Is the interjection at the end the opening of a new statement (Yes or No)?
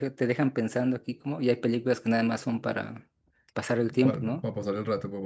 Yes